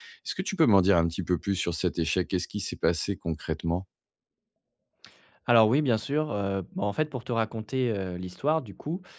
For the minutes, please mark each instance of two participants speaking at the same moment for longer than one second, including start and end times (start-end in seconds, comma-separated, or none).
none